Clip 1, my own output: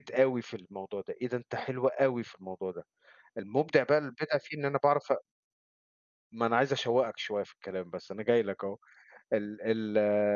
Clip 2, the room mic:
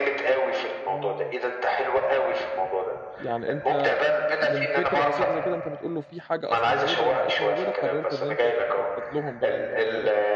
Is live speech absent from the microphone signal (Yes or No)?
No